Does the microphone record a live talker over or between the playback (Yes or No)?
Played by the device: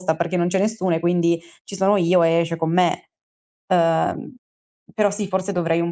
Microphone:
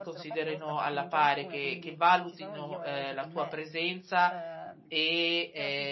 Yes